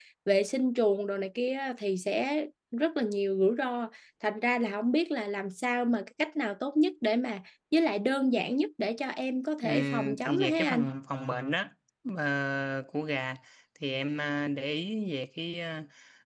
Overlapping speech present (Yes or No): Yes